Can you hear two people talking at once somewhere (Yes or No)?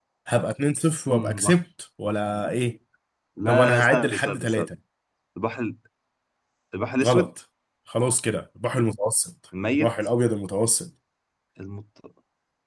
Yes